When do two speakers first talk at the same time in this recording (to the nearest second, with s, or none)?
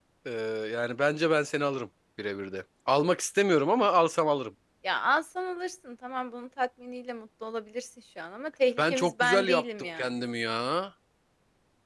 9 s